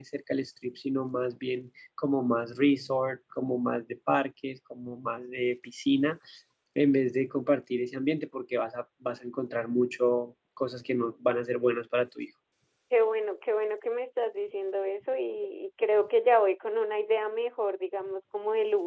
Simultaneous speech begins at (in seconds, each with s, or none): none